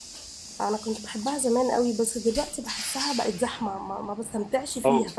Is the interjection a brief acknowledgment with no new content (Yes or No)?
No